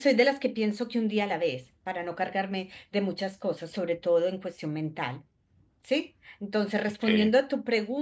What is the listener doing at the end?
listening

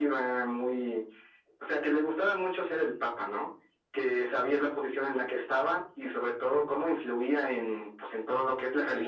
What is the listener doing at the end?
taking over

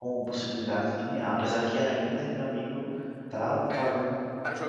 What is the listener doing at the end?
taking over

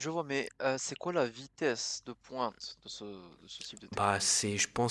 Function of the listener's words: taking over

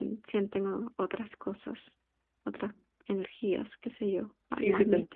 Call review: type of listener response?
taking over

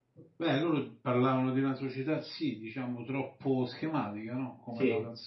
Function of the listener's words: listening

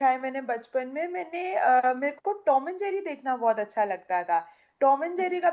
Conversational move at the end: listening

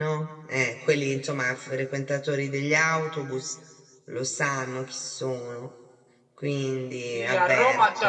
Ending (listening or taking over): taking over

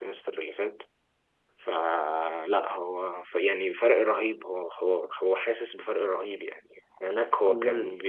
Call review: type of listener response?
listening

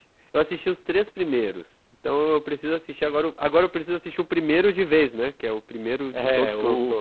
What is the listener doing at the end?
taking over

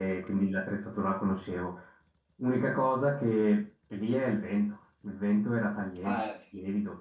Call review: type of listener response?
listening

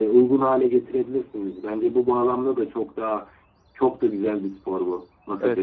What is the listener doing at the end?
taking over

